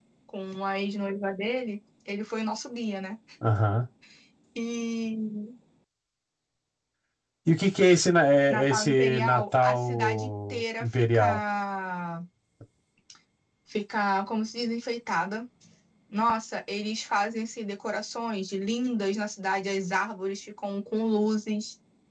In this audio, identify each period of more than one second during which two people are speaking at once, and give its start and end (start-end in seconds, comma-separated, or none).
8.5-11.4